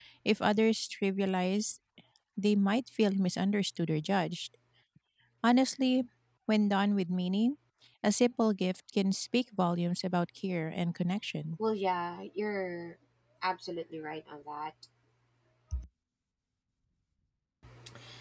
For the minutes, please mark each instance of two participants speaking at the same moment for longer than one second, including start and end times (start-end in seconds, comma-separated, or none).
none